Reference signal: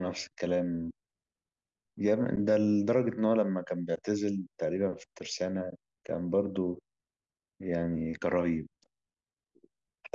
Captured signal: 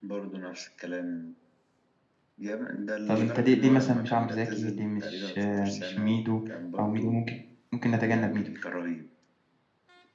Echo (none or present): present